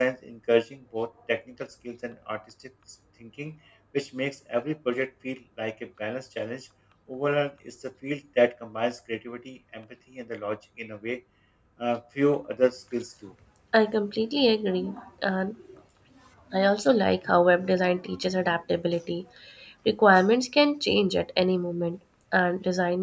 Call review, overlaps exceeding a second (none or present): none